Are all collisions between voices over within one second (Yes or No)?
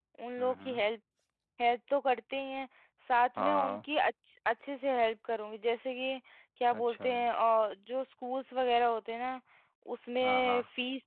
Yes